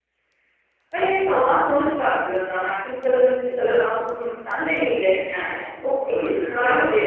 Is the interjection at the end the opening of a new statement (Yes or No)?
Yes